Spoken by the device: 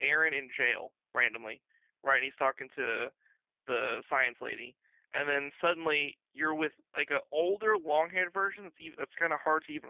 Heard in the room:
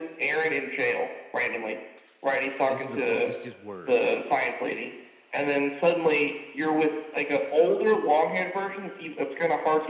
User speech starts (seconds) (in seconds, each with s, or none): 2.7 s